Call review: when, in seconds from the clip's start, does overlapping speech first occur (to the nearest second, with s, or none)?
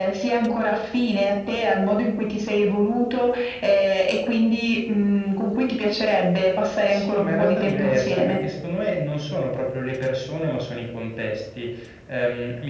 7 s